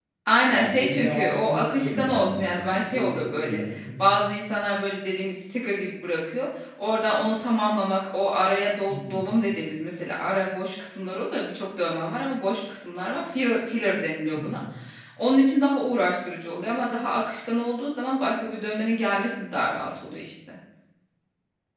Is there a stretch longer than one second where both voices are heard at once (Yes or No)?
Yes